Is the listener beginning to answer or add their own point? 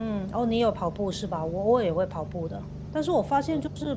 No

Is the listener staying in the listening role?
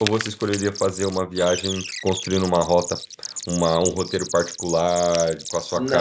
No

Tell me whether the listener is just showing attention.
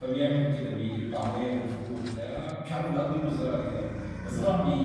Yes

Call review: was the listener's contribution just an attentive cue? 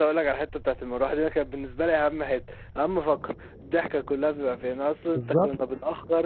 Yes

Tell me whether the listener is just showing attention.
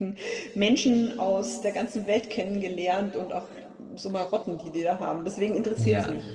No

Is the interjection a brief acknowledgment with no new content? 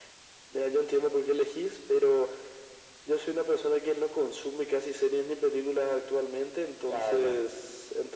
Yes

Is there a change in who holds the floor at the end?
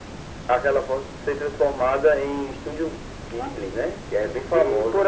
Yes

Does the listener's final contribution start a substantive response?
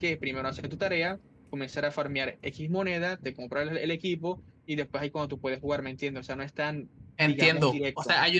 Yes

